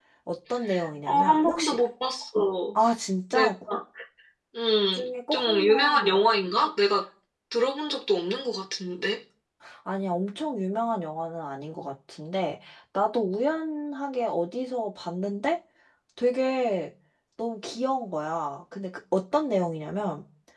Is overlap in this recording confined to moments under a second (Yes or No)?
No